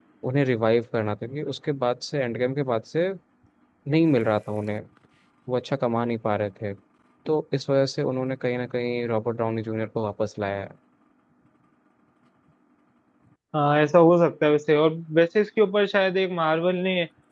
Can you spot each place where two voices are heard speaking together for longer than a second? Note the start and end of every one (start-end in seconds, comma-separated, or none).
none